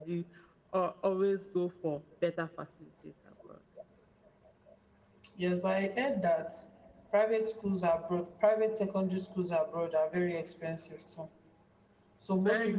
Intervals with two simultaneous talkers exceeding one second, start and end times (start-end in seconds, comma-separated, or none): none